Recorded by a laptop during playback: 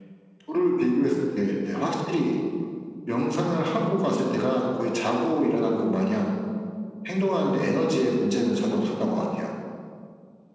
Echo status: present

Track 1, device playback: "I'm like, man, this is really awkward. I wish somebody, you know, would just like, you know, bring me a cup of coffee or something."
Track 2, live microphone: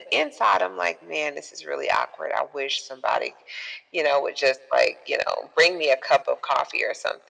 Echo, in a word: present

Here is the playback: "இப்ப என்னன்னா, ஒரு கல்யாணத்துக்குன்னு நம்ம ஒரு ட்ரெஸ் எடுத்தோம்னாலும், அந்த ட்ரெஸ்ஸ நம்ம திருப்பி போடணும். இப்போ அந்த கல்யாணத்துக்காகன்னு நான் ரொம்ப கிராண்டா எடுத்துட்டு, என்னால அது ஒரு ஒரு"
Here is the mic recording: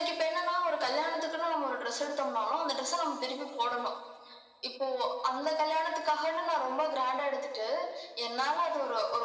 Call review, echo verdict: present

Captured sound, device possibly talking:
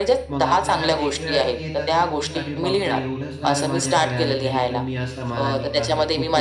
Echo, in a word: present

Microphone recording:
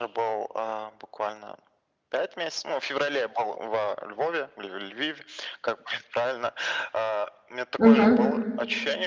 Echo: present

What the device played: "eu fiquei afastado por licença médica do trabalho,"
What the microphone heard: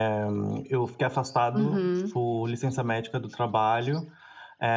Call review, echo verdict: present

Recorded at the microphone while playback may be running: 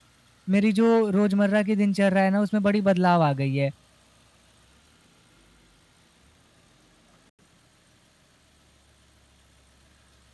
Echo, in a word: none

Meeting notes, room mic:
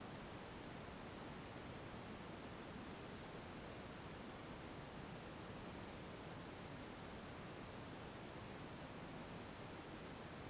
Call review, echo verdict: none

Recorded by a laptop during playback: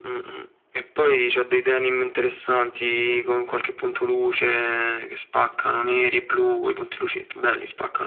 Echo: present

